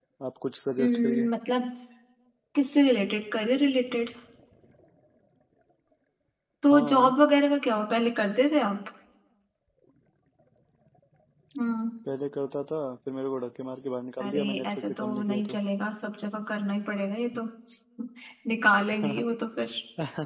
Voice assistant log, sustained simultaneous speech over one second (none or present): present